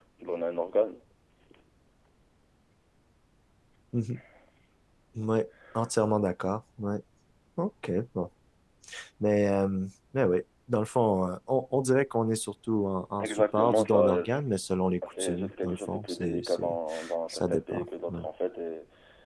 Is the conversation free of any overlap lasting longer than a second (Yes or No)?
No